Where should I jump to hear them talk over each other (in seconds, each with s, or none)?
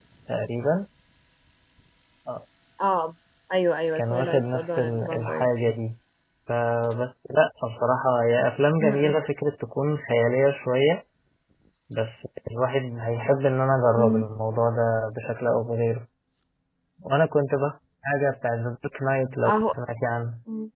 4.0 s